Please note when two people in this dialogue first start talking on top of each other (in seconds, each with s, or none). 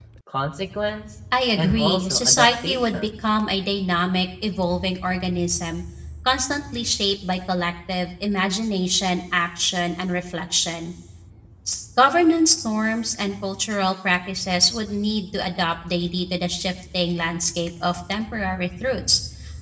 1.6 s